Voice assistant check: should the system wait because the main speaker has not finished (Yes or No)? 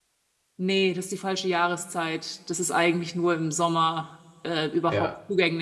Yes